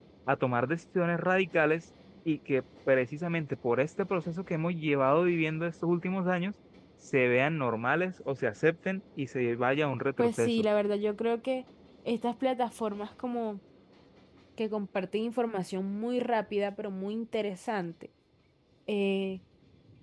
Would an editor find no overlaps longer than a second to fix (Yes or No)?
Yes